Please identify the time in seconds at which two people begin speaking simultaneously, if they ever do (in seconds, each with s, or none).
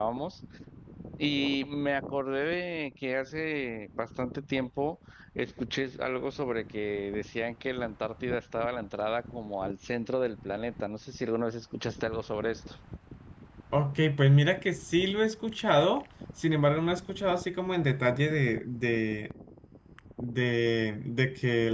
none